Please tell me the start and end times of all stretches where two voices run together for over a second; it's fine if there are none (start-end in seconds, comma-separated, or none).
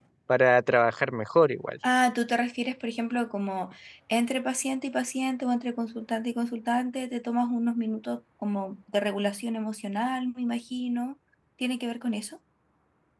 none